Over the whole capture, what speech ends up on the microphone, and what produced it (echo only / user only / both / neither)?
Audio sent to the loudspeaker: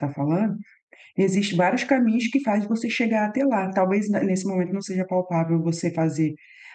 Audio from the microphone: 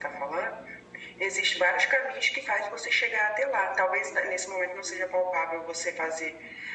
echo only